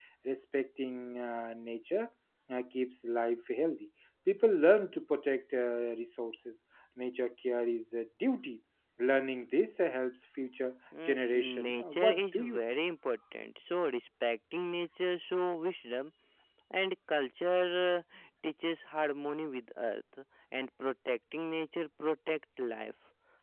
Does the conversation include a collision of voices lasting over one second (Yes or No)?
Yes